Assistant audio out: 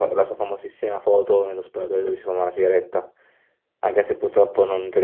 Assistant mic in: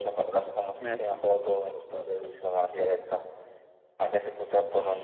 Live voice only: Messi.

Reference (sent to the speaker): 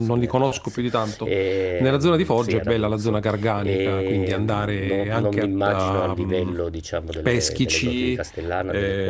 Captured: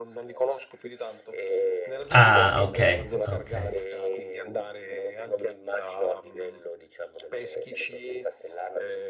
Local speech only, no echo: Ah, okay, okay.

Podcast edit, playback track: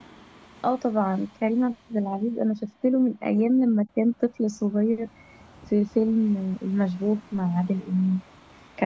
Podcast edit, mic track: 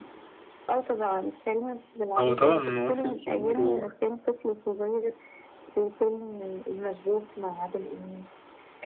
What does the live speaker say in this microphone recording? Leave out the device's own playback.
هو طبعا ممثل كبير و...

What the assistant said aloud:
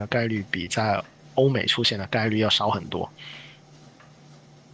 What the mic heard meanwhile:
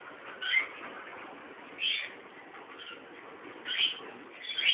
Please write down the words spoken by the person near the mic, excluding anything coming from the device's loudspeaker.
none

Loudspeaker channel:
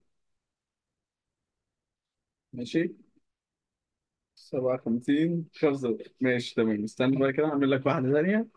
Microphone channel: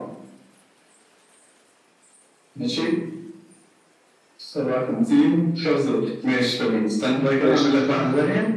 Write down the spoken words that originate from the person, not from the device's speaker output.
ماشي

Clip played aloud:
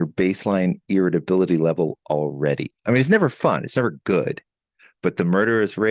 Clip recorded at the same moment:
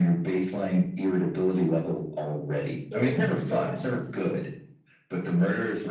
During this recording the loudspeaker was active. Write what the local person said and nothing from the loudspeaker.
it was just

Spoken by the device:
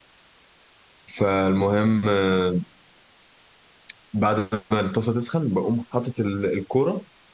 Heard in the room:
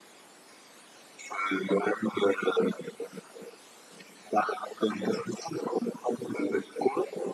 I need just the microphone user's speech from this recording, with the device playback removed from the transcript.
none

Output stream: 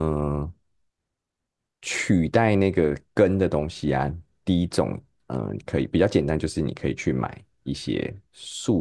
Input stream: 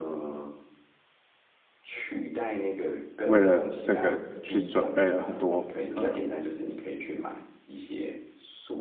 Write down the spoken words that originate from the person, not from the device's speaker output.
为了这个去准备了很多呃

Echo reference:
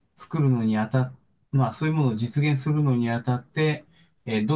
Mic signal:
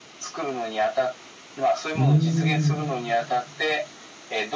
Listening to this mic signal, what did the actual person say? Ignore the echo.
ーん。

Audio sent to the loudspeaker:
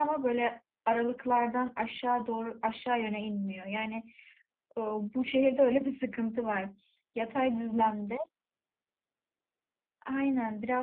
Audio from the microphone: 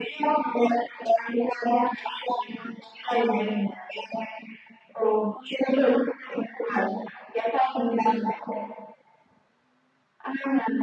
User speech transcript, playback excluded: none

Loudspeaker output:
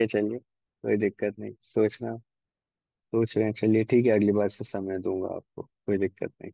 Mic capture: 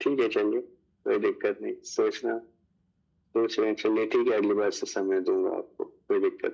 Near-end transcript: none

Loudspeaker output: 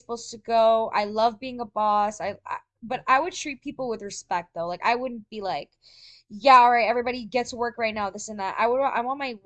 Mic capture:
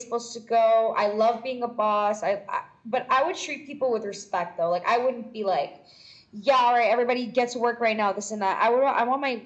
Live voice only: none

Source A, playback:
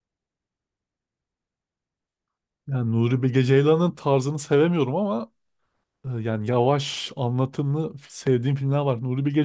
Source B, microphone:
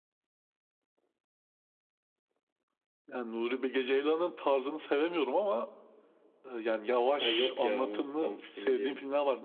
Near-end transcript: Ha, yok ya onu tam emin değilim.

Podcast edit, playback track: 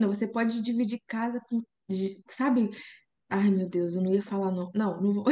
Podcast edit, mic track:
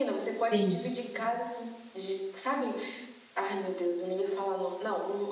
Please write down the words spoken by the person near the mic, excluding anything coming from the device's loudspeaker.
sim,

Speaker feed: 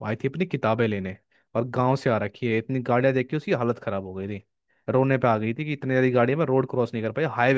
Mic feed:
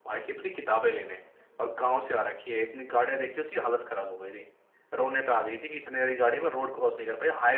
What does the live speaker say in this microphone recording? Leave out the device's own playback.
none

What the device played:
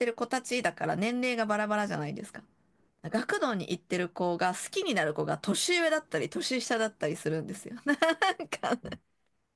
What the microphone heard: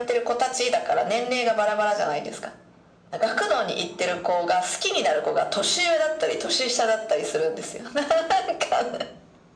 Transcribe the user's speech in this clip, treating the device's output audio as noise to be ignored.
none

